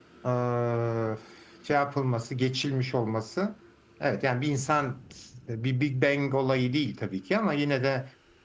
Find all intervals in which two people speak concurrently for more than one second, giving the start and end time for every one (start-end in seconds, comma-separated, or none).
none